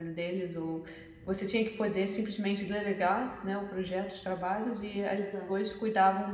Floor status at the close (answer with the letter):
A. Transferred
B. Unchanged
B